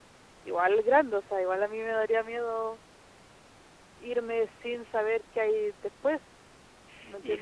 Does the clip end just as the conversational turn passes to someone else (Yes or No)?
Yes